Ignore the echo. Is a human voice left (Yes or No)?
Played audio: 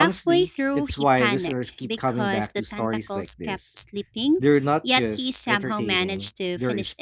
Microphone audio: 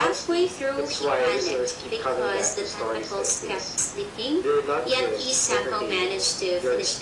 No